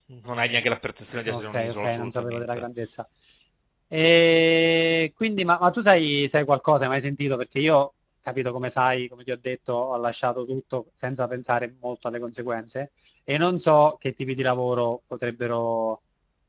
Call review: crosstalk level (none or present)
present